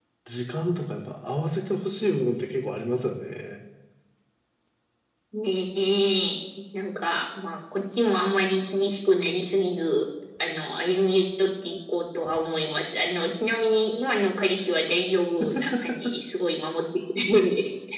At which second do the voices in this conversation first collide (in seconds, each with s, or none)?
none